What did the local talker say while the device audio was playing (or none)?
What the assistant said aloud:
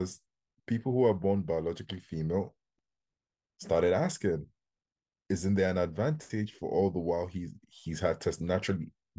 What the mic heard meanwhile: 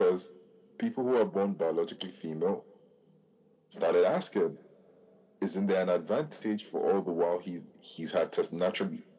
none